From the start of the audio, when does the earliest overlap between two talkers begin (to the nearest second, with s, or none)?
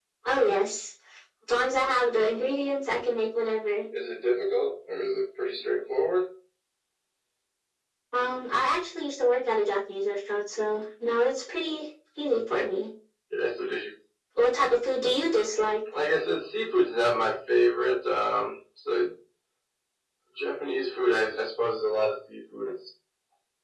none